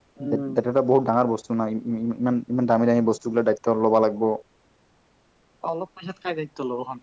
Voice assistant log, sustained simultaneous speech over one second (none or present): none